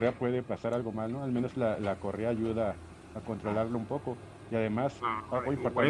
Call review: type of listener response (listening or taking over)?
taking over